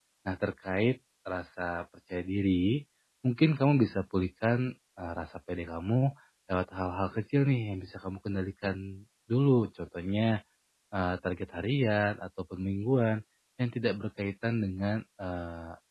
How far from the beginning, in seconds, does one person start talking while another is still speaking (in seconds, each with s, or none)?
none